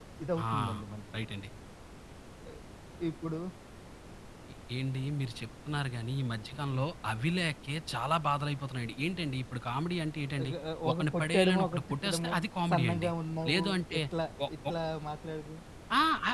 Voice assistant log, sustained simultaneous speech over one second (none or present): present